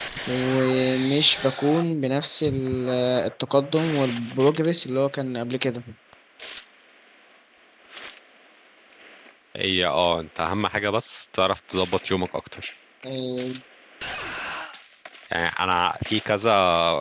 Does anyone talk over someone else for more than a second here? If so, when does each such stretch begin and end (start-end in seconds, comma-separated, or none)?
none